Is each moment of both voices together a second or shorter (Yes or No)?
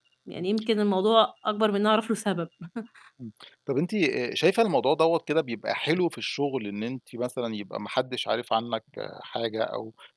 Yes